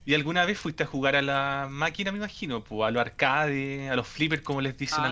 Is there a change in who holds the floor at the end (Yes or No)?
Yes